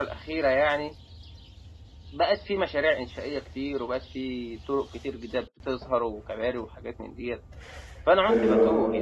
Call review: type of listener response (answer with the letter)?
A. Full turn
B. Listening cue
B